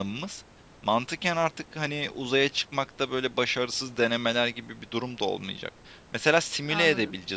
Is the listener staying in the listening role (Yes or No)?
Yes